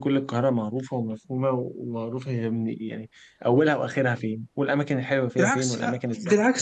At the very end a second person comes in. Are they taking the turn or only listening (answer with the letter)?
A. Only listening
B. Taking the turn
B